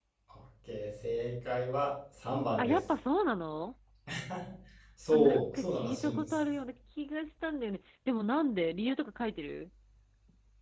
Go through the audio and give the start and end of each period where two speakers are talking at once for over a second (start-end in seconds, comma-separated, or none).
5.1-6.4